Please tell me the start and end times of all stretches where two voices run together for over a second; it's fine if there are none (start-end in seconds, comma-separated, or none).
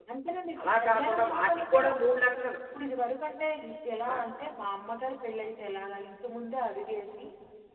0.6-1.9